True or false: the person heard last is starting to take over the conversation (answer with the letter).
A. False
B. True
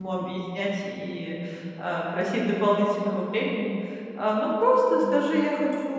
A